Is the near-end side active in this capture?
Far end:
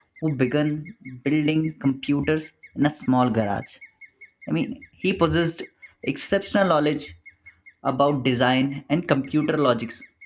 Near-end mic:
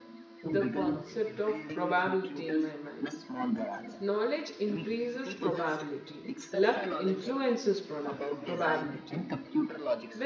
Yes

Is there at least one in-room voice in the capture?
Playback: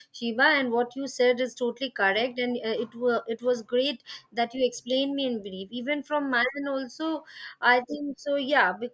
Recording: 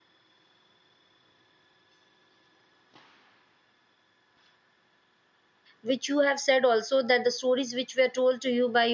Yes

